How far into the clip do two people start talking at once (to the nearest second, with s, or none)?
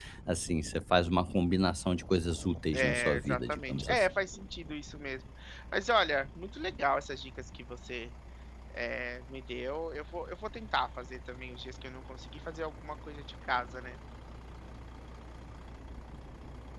3 s